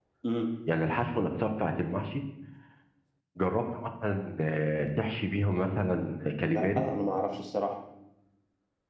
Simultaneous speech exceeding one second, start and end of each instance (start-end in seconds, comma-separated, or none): none